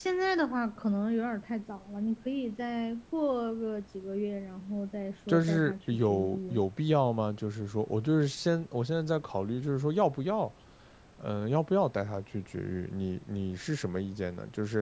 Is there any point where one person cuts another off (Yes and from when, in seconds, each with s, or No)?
Yes, from 5.3 s